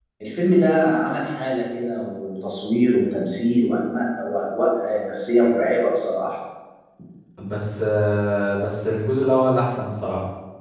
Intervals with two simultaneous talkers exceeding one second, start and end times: none

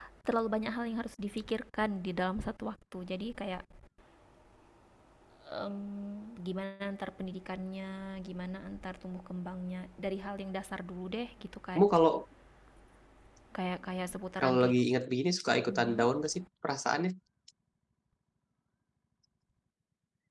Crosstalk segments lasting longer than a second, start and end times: none

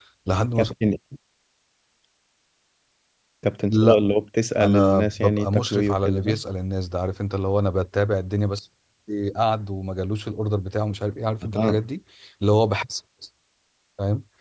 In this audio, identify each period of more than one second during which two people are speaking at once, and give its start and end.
4.6-6.3

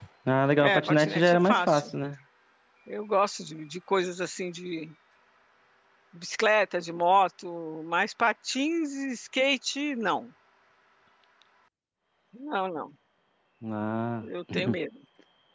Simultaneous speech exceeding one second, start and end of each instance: 0.6-1.9

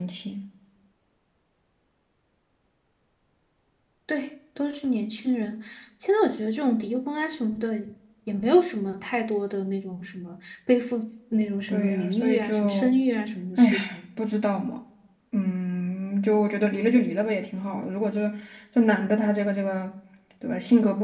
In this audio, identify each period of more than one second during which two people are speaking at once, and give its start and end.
11.7-13.0

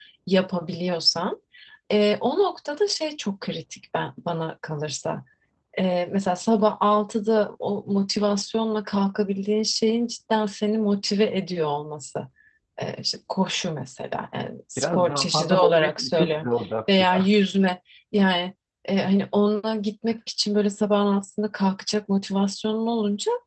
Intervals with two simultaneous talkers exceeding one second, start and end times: 14.8-16.5

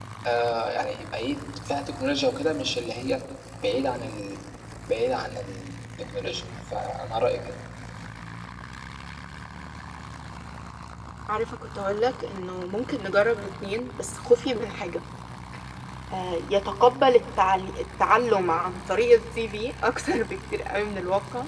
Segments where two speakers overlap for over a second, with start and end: none

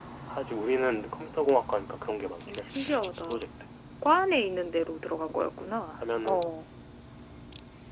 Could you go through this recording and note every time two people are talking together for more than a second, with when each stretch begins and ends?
none

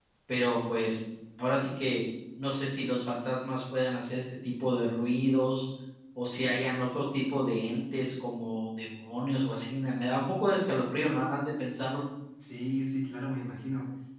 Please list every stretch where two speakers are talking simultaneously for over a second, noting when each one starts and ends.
none

